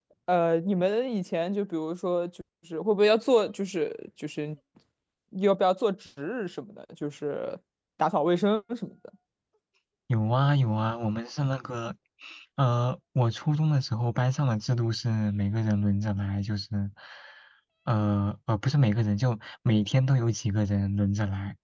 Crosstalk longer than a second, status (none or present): none